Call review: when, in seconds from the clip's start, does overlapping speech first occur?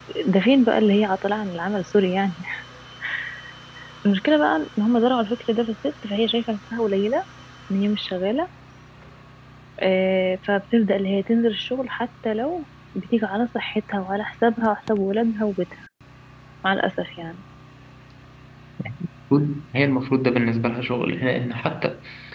none

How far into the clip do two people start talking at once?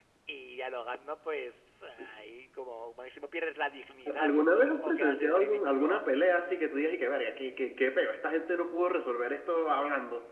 4.1 s

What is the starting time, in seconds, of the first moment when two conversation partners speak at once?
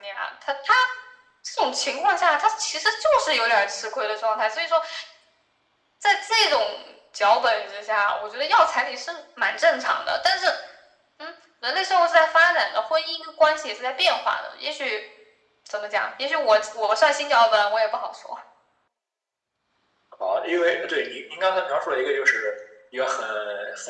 none

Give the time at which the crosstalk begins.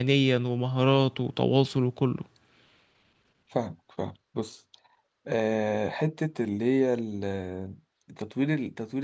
none

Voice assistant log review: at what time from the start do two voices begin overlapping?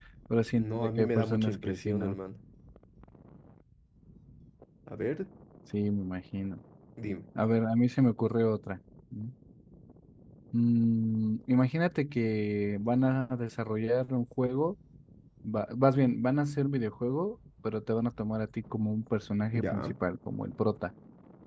0.6 s

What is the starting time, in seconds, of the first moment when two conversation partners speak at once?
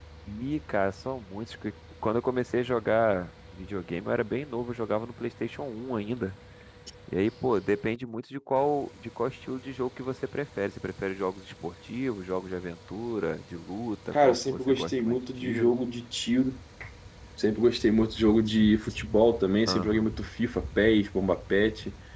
14.1 s

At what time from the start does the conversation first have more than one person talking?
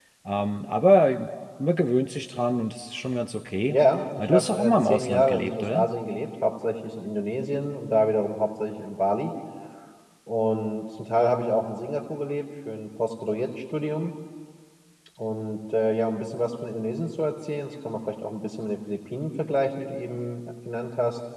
4.2 s

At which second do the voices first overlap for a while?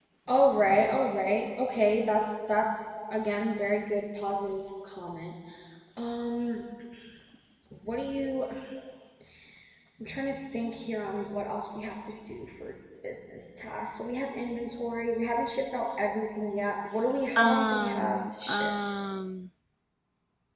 17.4 s

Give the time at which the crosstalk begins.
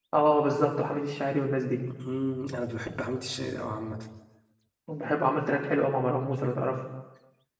none

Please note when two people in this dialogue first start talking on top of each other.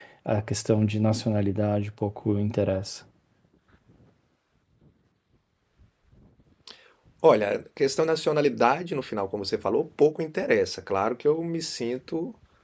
none

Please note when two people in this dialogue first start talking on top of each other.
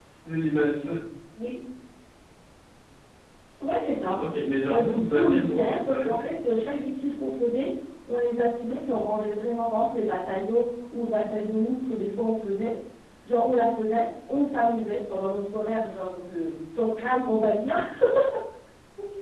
4.7 s

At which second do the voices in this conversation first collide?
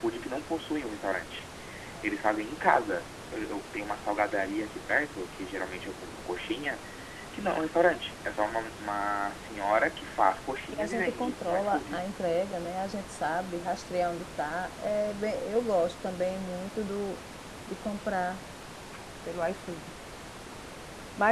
10.7 s

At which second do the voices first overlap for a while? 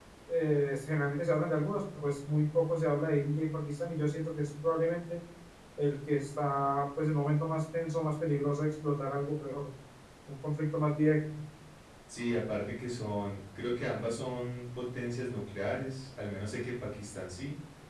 none

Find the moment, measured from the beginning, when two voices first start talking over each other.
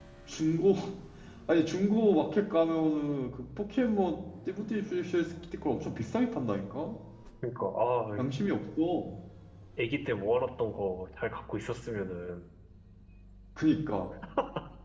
none

